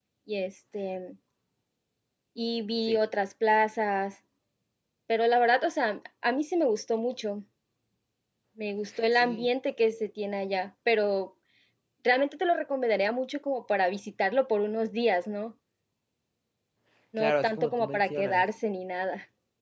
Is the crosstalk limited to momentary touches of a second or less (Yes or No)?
No